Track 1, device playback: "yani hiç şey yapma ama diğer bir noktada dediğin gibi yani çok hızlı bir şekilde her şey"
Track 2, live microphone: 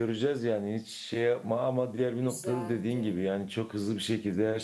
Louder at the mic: echo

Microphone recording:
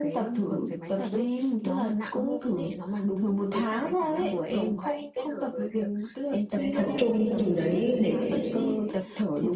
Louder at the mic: user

